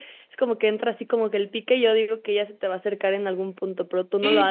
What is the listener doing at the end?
taking over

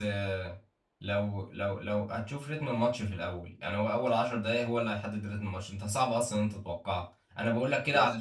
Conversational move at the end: listening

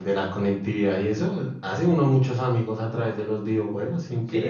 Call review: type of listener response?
taking over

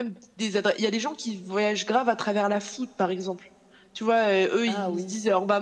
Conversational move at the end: listening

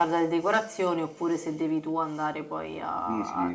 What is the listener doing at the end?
taking over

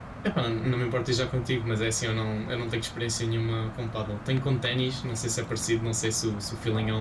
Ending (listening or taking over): taking over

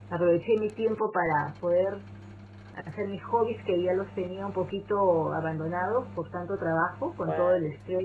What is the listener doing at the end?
listening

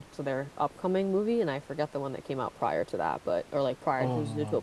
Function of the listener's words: listening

